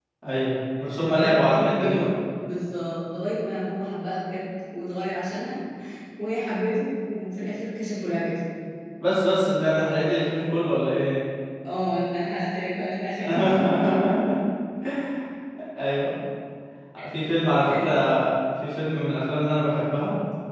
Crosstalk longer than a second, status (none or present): present